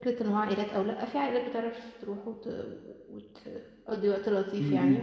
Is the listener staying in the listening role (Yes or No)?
Yes